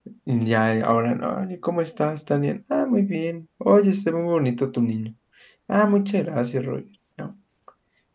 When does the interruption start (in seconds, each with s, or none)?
none